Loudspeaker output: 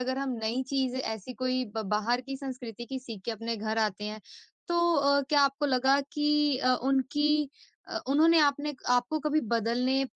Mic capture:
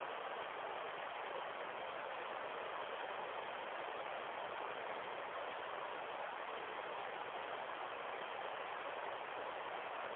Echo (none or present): none